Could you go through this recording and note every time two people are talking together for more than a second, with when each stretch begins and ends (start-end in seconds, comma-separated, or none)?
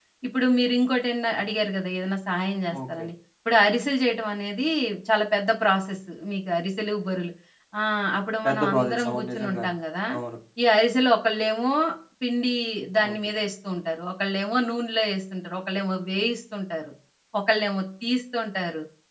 8.4-9.7